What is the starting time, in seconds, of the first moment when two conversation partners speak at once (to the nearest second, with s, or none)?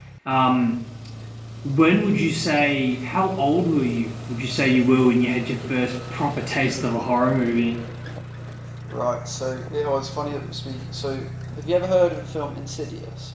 none